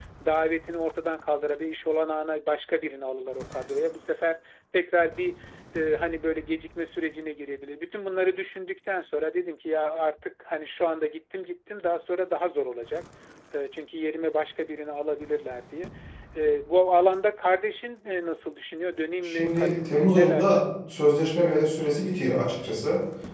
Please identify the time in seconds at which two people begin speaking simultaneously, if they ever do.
19 s

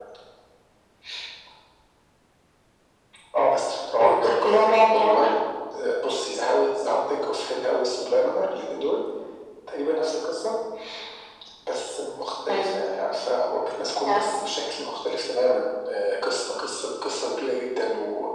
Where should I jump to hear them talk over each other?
4 s

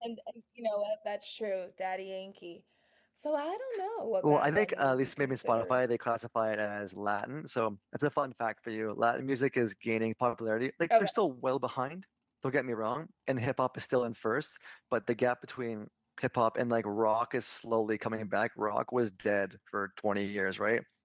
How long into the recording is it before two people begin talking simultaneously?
4 s

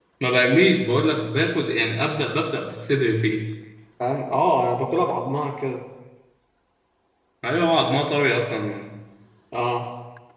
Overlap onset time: none

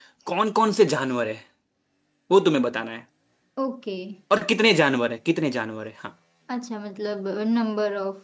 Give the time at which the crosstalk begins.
none

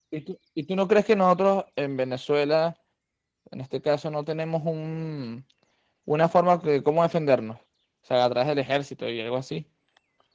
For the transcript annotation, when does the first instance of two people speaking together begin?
none

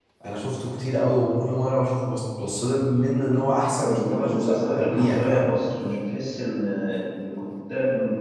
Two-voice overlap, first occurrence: 4 s

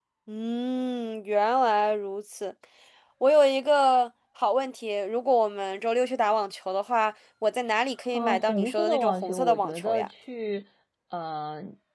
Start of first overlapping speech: 8 s

